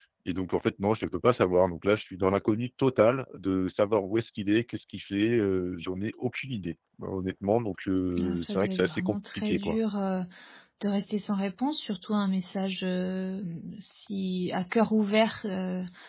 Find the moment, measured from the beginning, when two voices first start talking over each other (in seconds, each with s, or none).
8.2 s